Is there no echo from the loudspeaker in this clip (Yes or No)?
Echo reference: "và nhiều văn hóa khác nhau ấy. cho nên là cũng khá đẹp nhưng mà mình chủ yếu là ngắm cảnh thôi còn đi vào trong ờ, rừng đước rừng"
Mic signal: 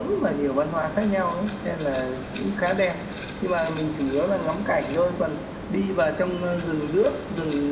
No